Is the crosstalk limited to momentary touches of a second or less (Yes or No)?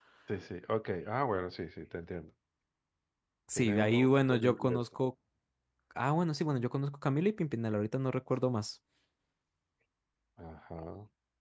No